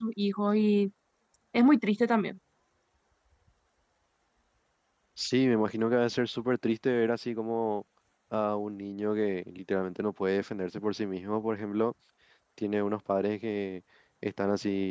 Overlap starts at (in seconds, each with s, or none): none